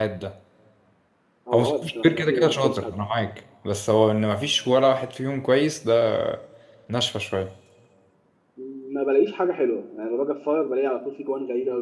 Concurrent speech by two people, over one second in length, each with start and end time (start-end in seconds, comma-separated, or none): 1.5-2.9